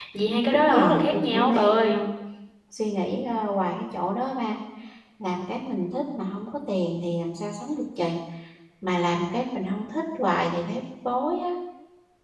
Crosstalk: present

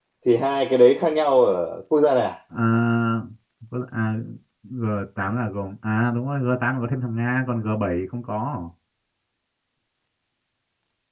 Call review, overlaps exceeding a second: none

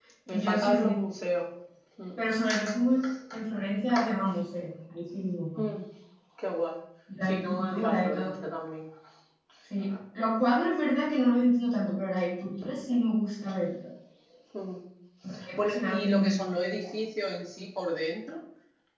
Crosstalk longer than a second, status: present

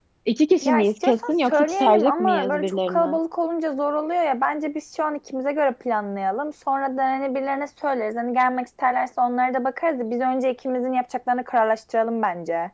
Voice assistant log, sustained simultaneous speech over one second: present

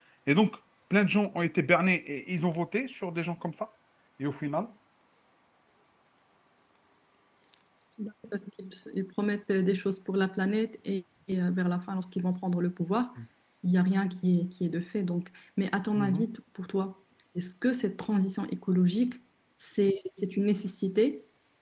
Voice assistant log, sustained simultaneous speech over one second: none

